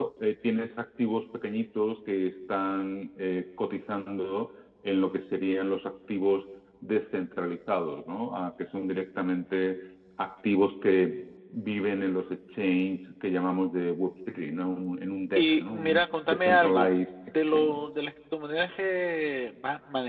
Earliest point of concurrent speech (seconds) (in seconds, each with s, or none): 15.4 s